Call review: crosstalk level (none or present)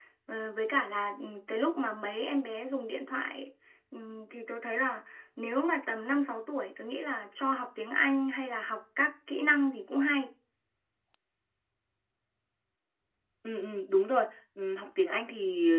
none